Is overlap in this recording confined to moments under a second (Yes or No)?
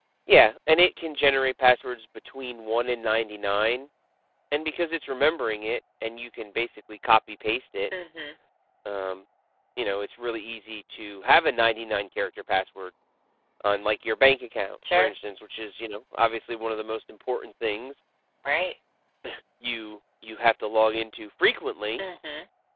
Yes